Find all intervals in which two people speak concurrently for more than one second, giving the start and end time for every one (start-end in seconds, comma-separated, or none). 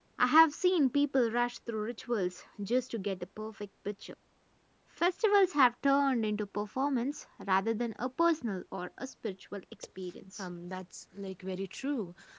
none